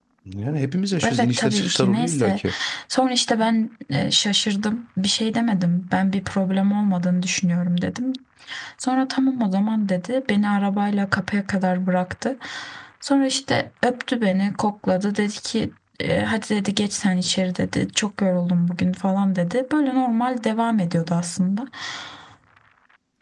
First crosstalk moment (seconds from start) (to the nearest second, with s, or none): 1 s